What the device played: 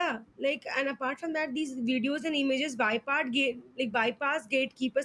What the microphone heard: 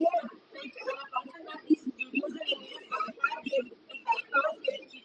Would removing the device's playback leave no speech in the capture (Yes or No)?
Yes